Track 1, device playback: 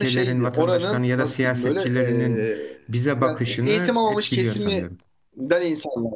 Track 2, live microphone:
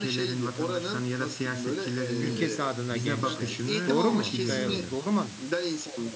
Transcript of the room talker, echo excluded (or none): ülkesi adına gençler. Doğru mu? Ee, doğru mu?